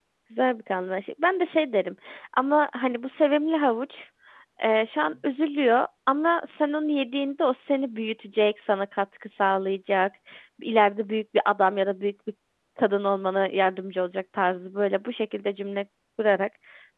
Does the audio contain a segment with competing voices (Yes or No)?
No